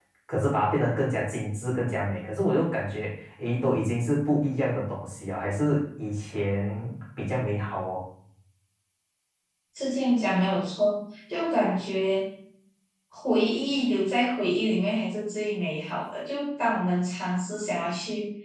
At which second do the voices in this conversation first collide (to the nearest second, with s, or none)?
none